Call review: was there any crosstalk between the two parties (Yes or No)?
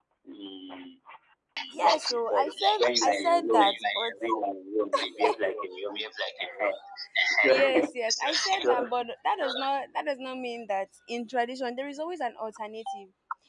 Yes